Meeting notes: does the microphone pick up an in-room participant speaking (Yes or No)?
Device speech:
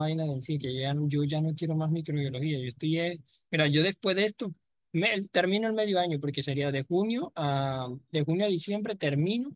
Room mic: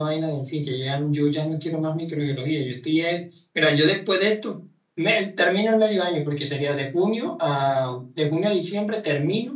No